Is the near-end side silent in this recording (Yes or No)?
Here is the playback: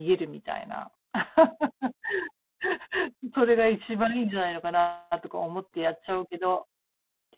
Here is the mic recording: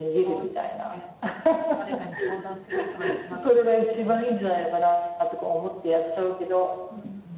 No